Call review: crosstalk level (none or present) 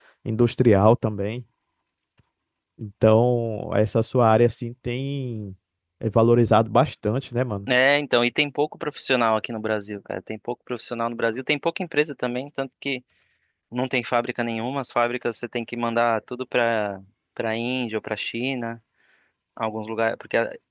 none